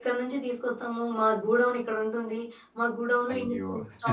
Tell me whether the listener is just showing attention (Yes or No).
Yes